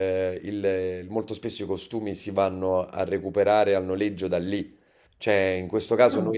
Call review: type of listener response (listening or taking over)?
listening